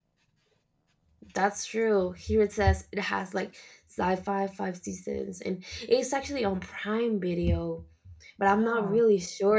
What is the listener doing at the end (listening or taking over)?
listening